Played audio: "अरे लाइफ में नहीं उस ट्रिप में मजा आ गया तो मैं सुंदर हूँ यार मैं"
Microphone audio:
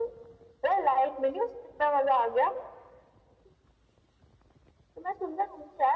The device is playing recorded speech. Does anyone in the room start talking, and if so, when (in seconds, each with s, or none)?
none